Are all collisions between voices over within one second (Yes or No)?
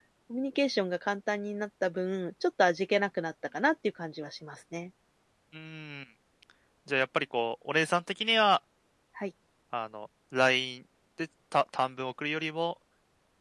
Yes